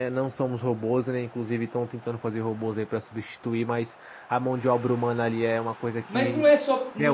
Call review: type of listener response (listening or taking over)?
taking over